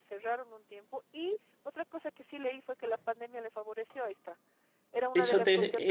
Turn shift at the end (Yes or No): Yes